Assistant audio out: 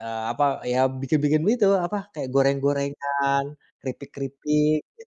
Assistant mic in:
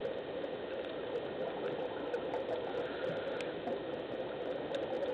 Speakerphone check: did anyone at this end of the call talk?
No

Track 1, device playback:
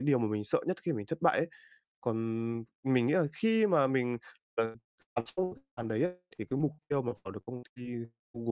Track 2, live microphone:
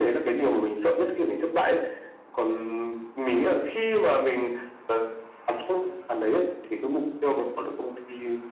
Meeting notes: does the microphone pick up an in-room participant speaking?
No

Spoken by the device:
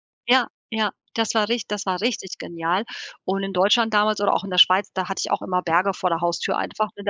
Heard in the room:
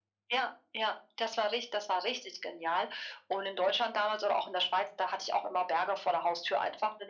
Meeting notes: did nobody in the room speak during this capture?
Yes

